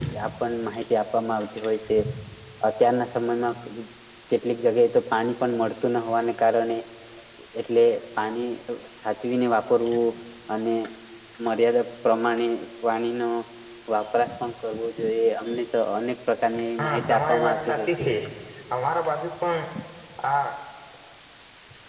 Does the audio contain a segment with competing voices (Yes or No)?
Yes